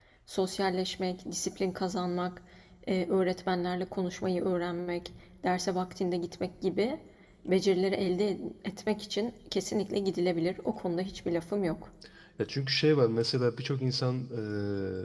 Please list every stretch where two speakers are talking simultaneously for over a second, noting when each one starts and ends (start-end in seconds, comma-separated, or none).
none